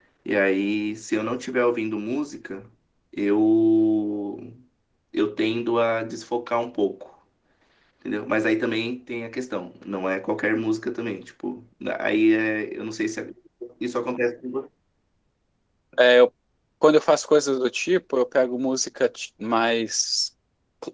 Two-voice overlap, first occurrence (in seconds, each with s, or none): none